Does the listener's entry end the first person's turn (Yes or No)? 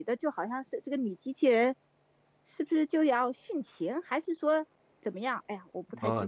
Yes